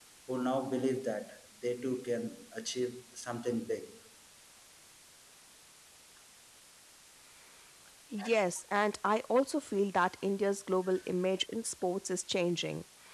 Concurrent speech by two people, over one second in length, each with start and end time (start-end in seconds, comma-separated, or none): none